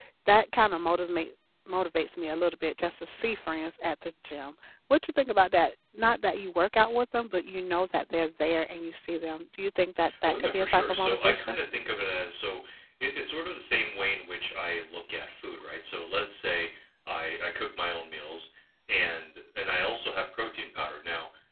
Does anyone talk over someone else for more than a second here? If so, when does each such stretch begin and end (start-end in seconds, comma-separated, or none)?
10.3-11.6